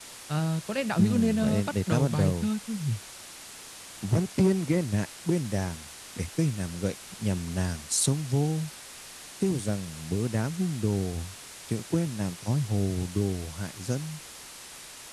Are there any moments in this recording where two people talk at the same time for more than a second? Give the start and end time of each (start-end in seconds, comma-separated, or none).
1.0-2.5